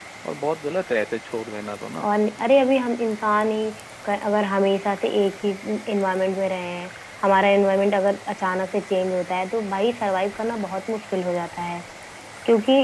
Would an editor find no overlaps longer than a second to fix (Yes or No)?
Yes